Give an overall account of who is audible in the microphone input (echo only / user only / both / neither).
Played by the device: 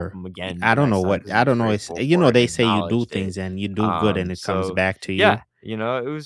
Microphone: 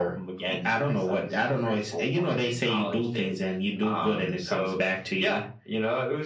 echo only